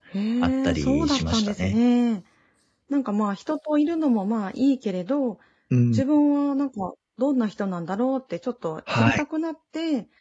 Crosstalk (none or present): present